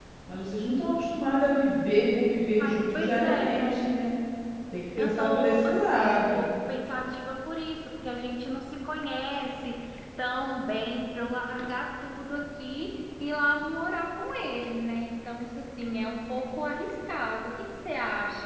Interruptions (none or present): present